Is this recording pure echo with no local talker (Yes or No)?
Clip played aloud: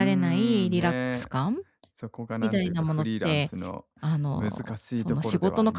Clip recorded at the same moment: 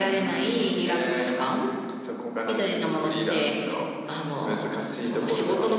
Yes